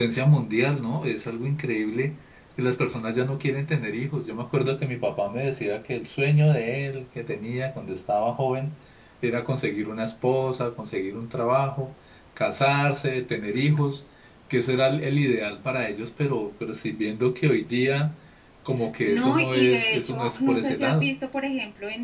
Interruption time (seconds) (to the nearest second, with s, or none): 19 s